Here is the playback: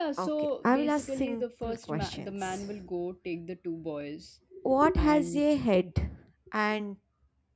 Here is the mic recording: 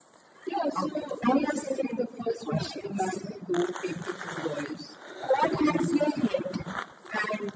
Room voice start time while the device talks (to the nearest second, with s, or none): none